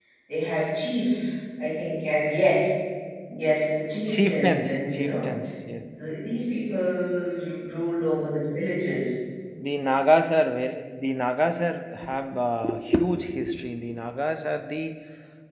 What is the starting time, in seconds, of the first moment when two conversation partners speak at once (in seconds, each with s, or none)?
4.1 s